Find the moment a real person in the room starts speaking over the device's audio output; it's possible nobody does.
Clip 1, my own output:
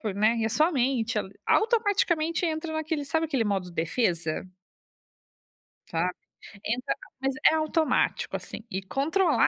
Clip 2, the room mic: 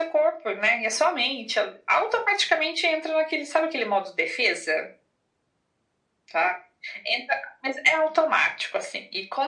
none

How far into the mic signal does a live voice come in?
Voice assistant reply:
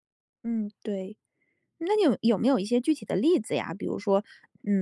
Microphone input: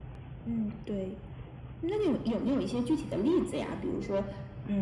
none

